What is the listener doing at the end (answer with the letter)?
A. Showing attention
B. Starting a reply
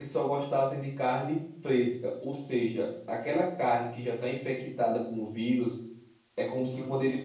A